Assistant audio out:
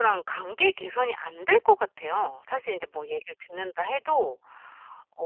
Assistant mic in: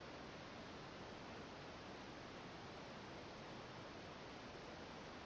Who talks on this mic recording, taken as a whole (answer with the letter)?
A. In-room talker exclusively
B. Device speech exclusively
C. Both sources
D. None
D